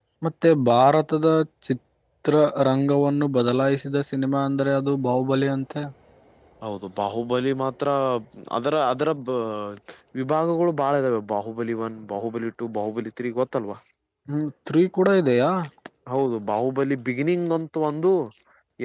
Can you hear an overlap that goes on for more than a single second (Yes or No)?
No